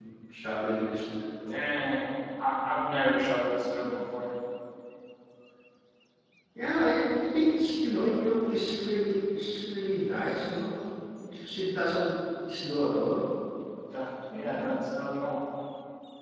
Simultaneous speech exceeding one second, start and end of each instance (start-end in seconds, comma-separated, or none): none